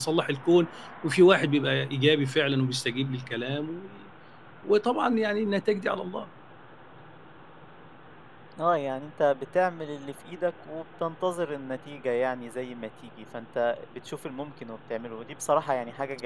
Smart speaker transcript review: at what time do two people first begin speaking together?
none

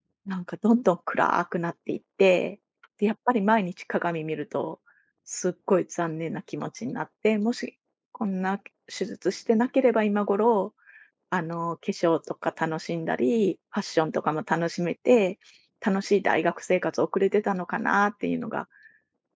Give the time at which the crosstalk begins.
none

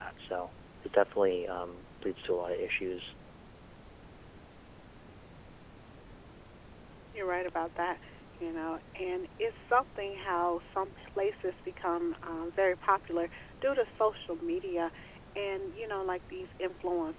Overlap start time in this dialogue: none

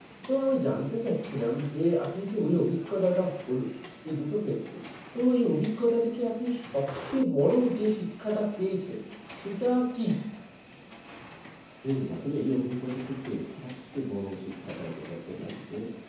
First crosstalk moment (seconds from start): none

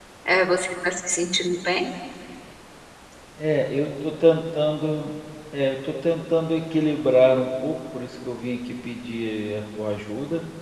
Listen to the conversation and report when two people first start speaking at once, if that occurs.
none

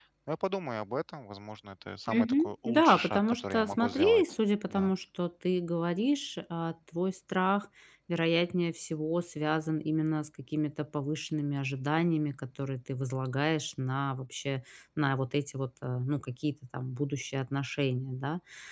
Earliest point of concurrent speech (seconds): 2 s

